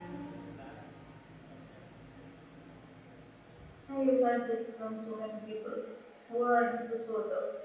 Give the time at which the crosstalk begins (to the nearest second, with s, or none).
none